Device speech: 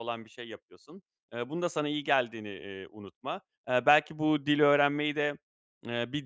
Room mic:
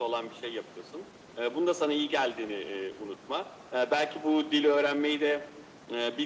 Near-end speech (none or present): none